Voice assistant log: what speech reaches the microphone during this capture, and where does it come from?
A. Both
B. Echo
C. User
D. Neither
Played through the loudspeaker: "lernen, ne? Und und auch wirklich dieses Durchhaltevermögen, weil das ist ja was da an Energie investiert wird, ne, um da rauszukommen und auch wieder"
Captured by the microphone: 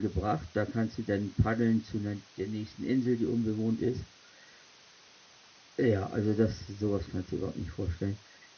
C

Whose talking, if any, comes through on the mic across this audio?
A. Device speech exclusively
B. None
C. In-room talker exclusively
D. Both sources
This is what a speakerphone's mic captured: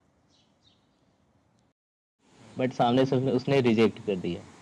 C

